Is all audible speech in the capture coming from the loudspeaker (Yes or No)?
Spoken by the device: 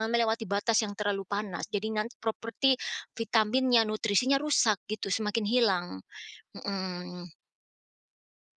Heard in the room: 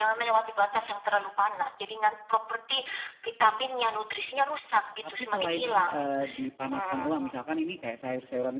No